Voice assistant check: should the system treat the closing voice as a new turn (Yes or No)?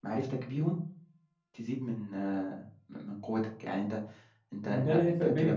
Yes